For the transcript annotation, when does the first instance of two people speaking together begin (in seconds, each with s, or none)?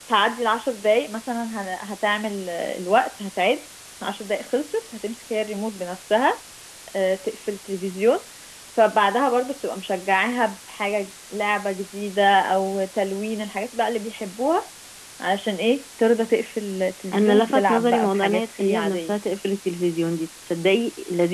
17.1 s